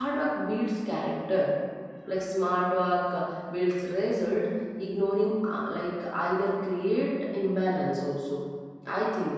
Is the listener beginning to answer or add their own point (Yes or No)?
Yes